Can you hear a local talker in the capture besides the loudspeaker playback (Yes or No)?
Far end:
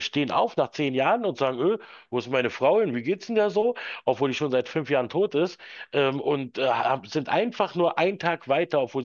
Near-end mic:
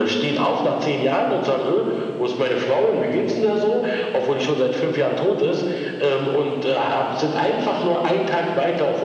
No